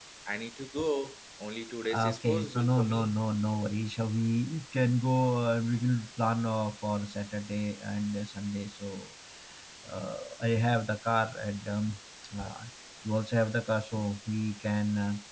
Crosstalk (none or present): present